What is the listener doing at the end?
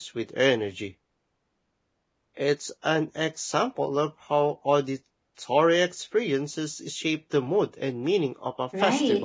taking over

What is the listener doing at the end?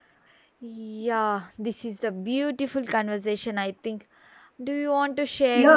taking over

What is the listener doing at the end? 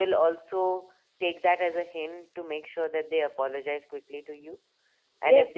taking over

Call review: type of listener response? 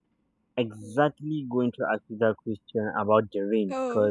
listening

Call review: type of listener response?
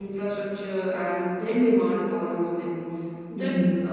listening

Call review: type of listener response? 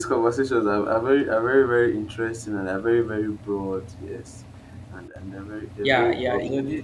taking over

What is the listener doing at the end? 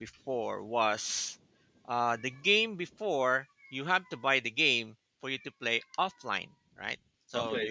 listening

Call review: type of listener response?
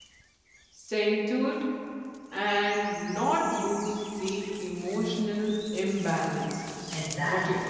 taking over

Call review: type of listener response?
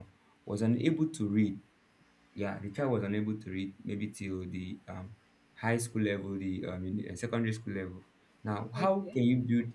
listening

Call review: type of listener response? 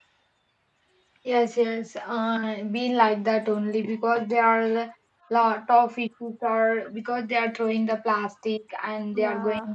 listening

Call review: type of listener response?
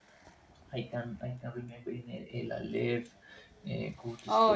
listening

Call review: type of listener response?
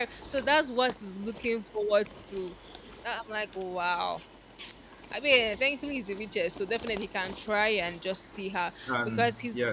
listening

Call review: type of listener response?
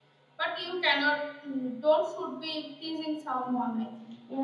taking over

